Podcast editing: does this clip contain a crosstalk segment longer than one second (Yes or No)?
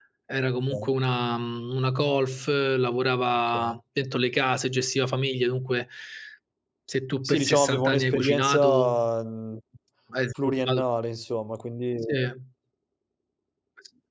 Yes